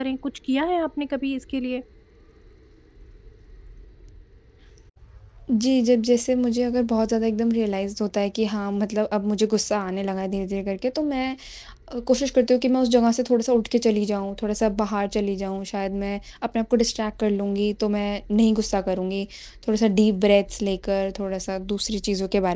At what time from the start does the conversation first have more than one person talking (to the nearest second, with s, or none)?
none